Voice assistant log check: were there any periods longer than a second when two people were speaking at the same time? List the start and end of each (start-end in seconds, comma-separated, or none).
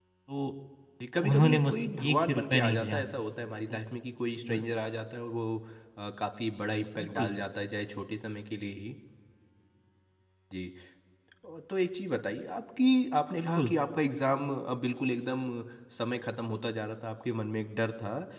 1.2-3.0